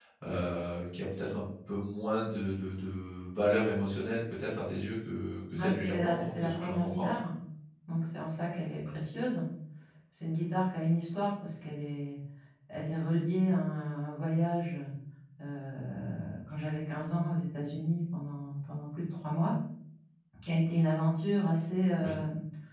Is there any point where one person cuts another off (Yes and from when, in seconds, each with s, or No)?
Yes, from 5.5 s